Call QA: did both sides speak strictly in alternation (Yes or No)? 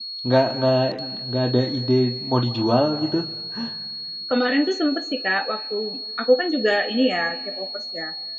Yes